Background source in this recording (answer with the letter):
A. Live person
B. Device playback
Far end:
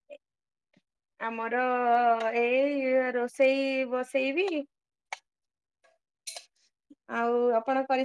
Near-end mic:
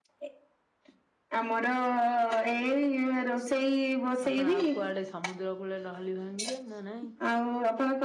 A